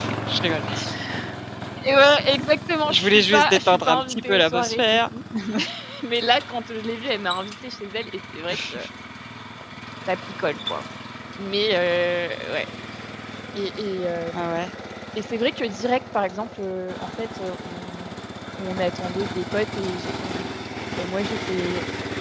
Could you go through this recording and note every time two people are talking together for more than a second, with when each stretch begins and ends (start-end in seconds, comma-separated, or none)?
2.9-5.1